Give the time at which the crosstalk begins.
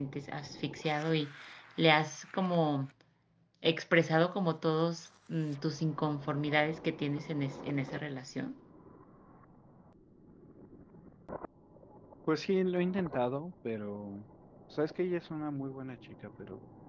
none

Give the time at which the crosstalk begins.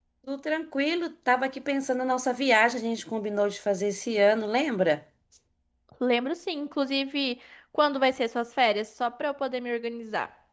none

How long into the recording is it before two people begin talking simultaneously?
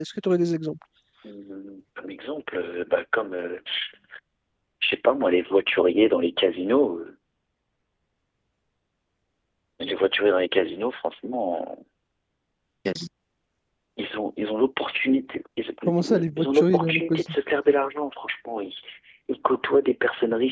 16 s

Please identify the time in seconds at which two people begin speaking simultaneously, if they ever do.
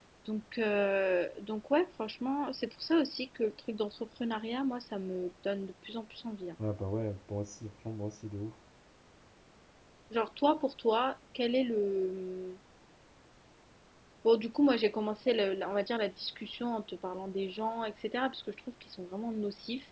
none

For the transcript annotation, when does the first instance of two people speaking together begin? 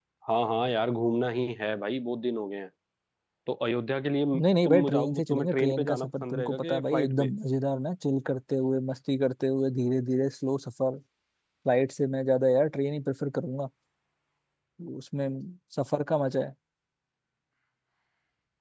5 s

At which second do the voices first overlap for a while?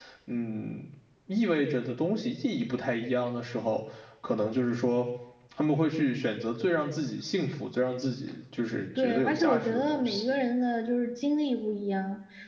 9 s

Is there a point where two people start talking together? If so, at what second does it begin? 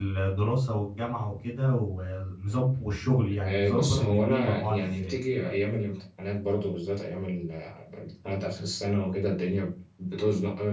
3 s

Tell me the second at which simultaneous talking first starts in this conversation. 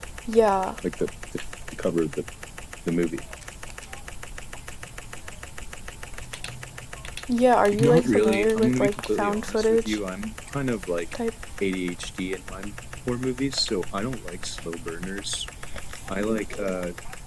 8 s

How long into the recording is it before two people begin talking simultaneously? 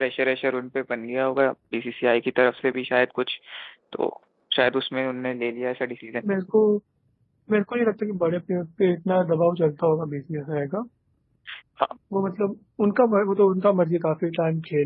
none

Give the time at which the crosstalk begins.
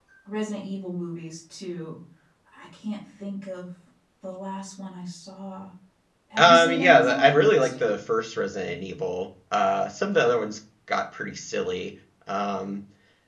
6 s

